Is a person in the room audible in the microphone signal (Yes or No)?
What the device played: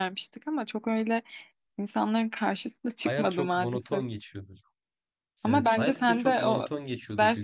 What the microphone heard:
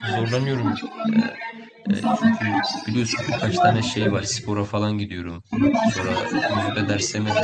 Yes